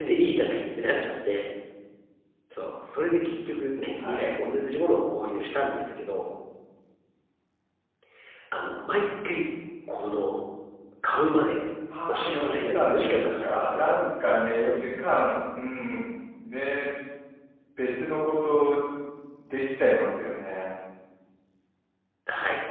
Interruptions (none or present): present